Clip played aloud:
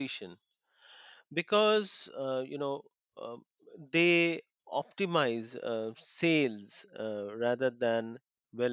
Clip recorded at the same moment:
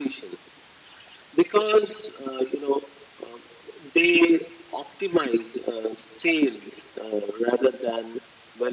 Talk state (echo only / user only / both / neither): echo only